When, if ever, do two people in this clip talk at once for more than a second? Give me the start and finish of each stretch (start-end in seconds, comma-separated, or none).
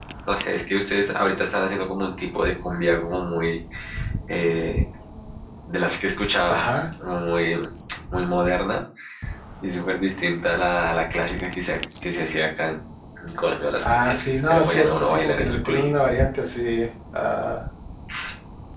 13.8-15.9